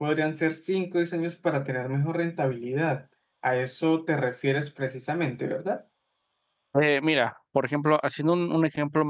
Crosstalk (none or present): none